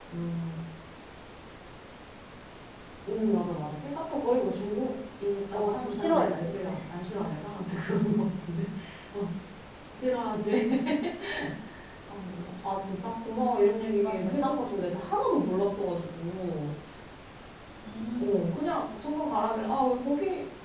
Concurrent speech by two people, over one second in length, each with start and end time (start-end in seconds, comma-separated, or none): 5.5-6.8